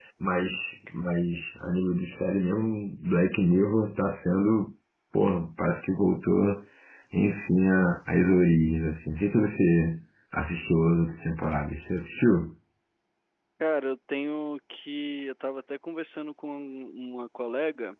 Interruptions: none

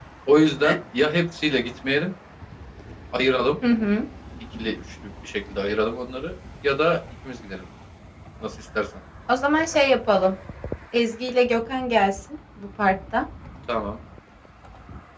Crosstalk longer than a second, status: none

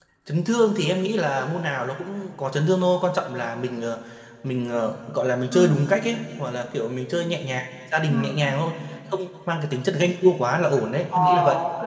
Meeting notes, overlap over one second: none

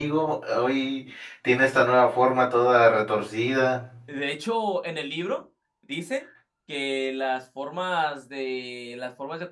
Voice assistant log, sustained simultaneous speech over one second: none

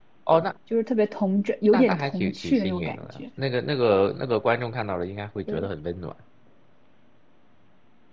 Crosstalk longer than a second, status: present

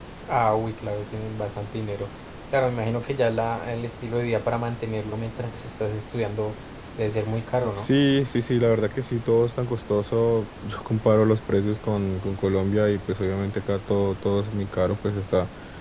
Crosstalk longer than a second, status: none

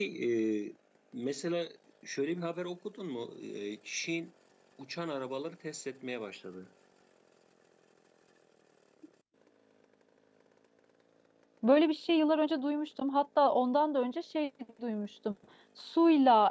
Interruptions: none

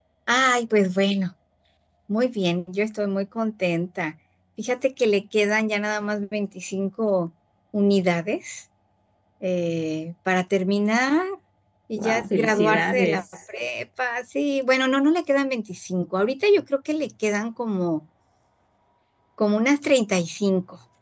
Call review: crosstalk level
present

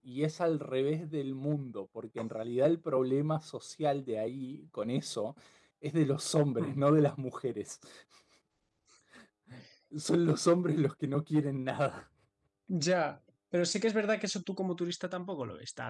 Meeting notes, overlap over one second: none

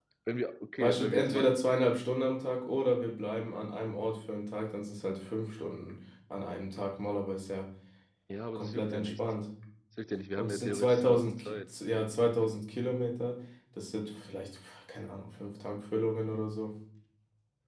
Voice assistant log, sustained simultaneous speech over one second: present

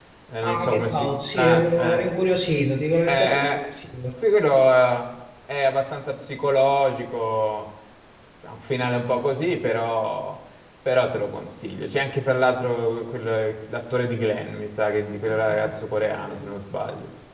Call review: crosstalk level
present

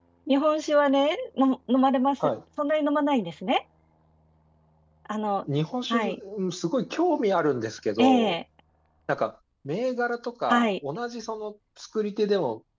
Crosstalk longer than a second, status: none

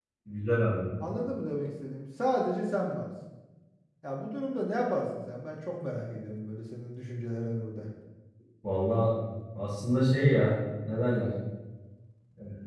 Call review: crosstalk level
none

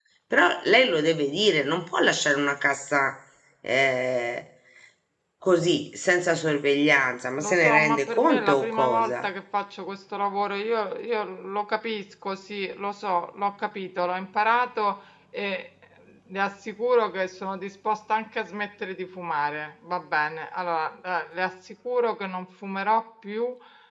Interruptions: present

